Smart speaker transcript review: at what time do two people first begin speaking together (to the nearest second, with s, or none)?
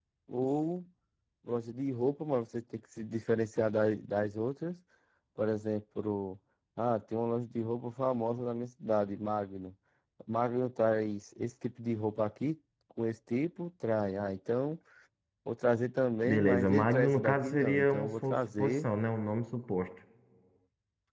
16 s